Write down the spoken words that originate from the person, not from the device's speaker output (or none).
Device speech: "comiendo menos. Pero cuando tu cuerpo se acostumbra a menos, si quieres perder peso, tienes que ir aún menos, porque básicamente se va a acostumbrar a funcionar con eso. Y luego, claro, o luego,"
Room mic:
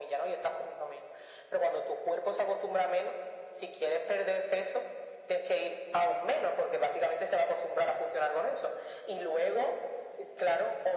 none